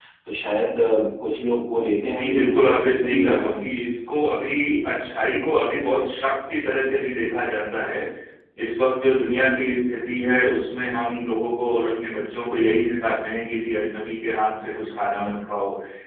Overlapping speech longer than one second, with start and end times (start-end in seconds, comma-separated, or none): 2.1-3.7